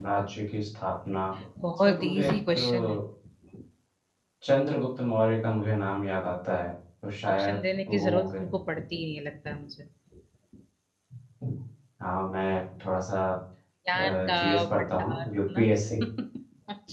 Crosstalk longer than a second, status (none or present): present